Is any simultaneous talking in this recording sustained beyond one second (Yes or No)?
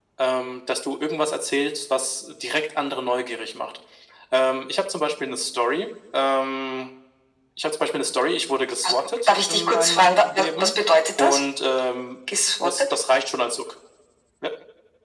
Yes